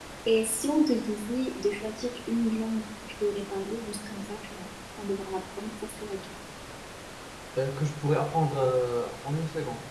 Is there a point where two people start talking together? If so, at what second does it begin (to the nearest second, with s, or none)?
none